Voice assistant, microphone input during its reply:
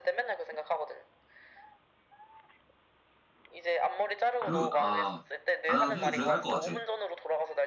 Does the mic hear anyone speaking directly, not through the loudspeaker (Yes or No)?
Yes